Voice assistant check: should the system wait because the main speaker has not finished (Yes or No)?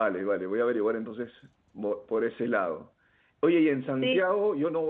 Yes